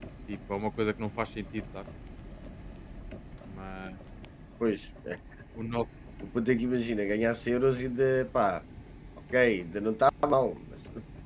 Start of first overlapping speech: none

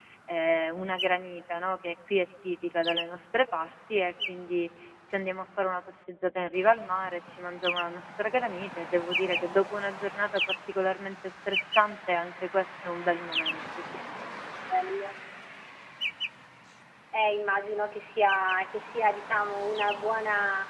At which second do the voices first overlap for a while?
none

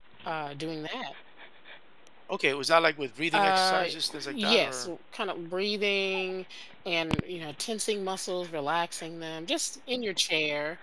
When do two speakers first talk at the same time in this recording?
3.3 s

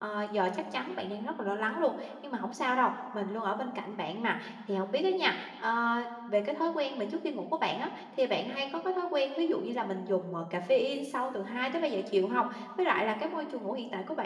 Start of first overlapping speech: none

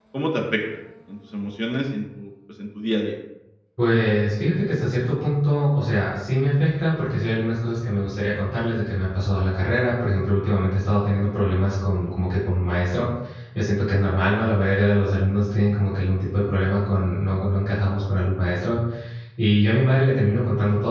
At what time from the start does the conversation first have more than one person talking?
none

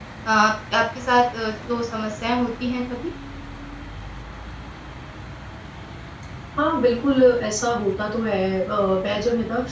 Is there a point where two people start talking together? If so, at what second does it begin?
none

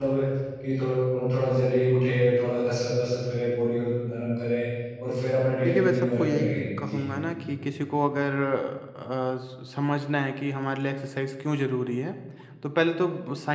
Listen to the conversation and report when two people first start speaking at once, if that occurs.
5.6 s

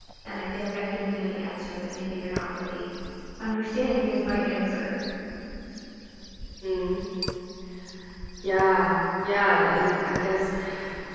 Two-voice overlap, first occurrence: none

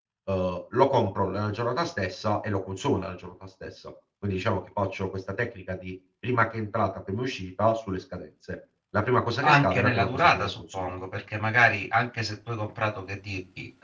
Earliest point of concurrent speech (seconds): 9.4 s

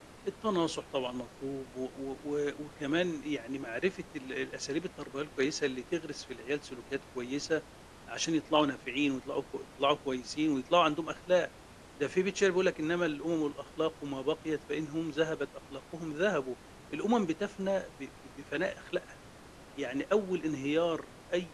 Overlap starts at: none

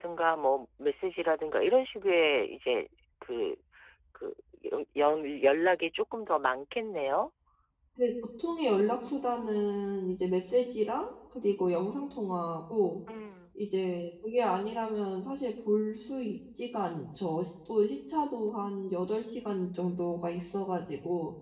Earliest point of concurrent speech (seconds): none

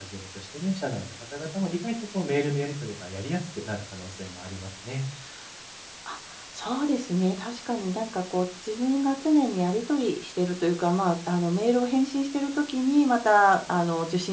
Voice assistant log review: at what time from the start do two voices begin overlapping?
none

